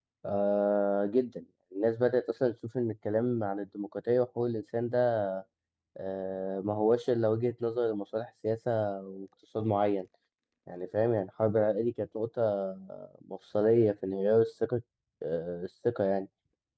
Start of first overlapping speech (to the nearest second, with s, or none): none